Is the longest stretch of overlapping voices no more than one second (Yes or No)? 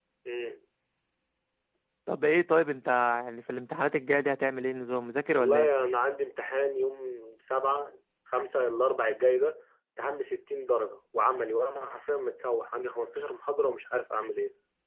Yes